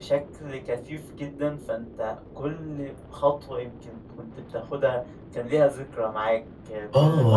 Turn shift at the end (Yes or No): Yes